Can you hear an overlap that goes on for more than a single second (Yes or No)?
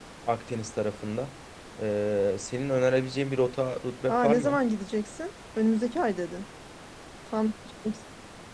No